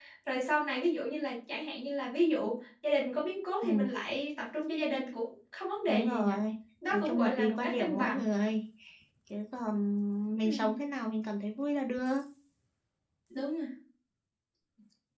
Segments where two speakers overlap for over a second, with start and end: 6.9-8.3

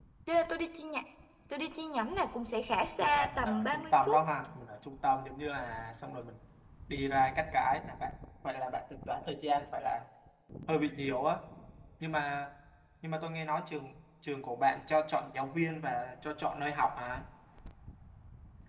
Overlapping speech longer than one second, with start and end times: 3.0-4.2

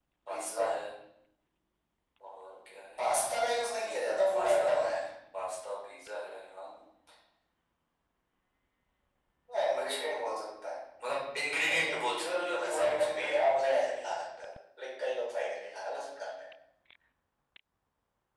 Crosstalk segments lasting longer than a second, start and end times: 11.8-13.2

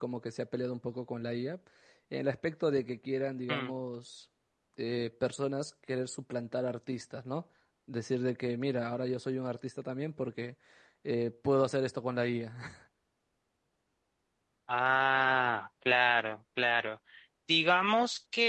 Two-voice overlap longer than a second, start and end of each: none

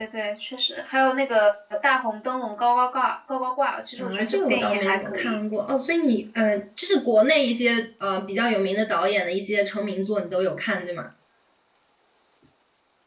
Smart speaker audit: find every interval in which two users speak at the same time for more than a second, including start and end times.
4.0-5.4

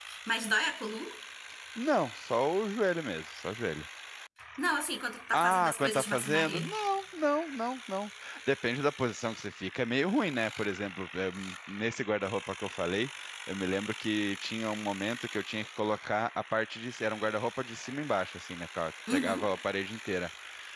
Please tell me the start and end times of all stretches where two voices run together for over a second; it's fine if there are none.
5.3-6.7

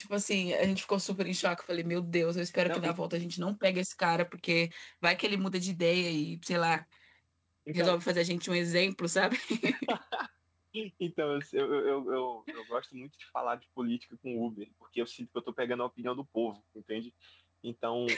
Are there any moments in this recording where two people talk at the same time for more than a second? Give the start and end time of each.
none

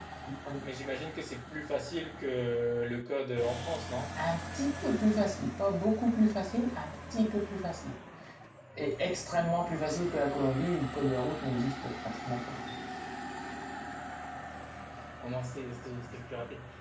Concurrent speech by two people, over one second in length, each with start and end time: none

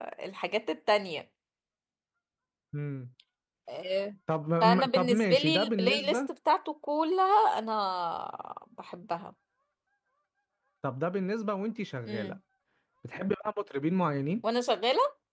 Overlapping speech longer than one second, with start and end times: 4.6-6.2

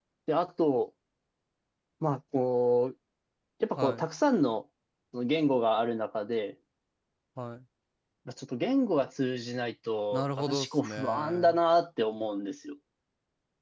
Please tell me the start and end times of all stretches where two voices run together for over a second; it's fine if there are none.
10.1-11.6

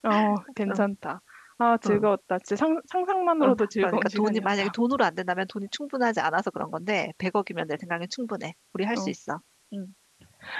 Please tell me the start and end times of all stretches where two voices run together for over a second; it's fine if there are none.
3.4-4.7

